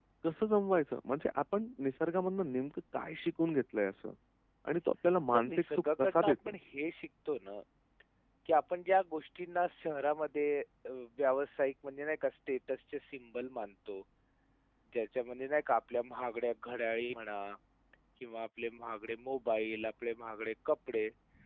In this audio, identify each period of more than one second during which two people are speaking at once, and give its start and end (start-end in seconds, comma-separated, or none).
5.3-6.5